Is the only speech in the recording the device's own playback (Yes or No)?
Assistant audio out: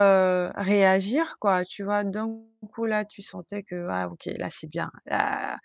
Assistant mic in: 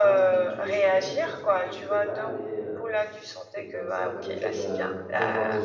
No